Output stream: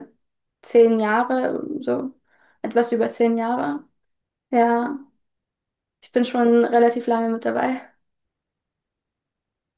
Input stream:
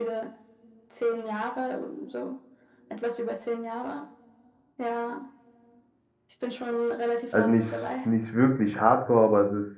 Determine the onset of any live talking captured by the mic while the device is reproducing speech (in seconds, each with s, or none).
7.3 s